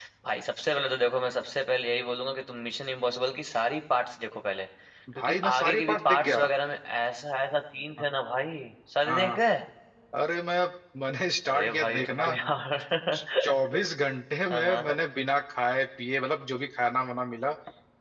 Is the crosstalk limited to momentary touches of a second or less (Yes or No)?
No